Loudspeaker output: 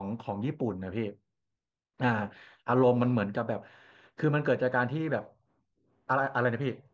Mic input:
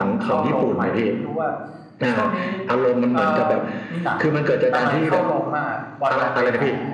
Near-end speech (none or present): present